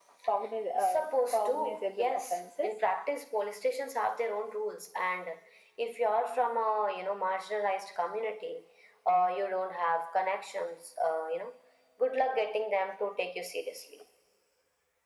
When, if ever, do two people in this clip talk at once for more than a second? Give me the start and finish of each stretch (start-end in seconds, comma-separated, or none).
0.8-2.8